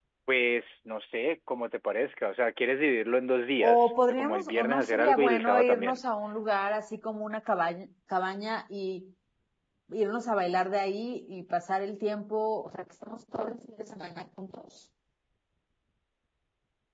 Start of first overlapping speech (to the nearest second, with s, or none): 4 s